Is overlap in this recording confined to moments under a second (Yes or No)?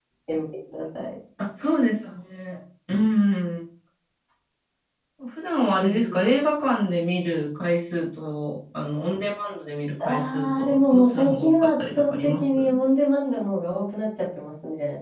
No